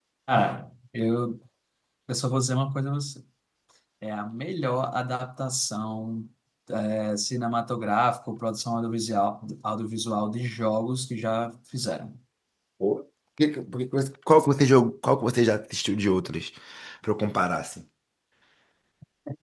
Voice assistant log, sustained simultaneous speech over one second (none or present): none